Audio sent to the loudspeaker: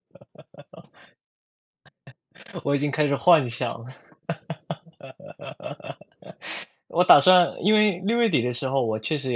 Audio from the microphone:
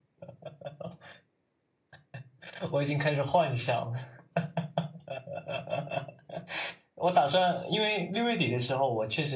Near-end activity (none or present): none